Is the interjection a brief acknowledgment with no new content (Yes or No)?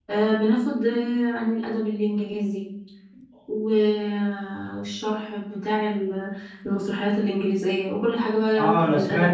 No